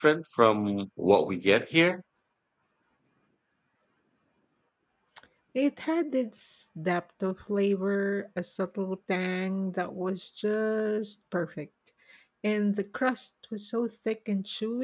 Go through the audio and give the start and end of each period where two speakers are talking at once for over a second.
none

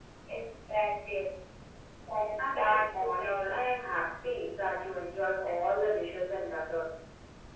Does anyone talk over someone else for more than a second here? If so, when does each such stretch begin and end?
2.4-3.7

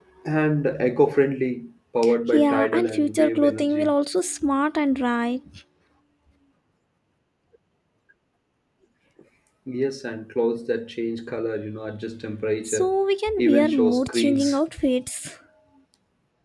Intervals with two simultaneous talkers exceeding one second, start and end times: 2.3-3.9, 13.4-14.6

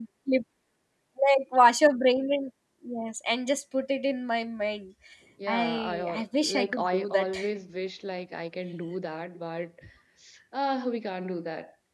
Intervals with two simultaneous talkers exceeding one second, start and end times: 5.5-7.3

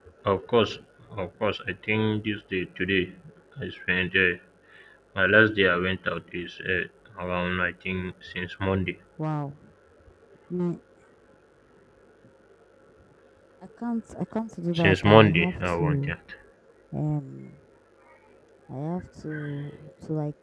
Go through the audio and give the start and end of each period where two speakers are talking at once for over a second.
14.8-16.1

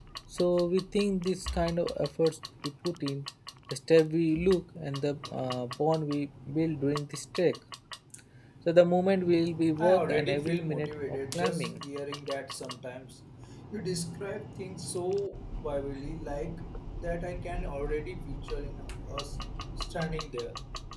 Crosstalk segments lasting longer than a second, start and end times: 9.8-11.8

